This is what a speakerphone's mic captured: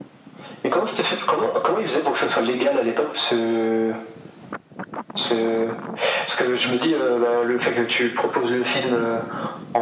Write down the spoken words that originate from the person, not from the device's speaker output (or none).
none